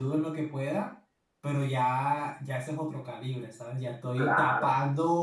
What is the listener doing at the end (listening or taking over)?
listening